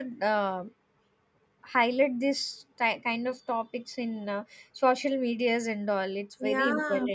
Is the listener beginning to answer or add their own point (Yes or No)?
Yes